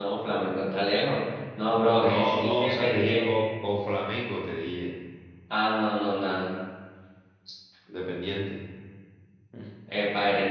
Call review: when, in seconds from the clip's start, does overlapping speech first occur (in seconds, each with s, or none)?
2.0 s